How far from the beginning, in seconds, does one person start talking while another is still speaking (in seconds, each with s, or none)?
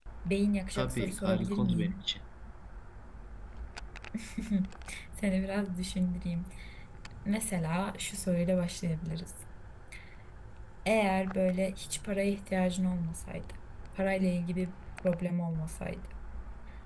0.8 s